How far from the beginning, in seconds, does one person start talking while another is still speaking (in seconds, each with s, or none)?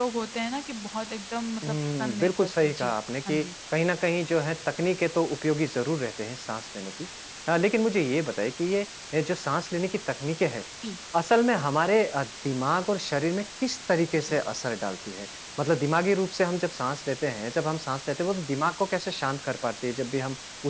1.6 s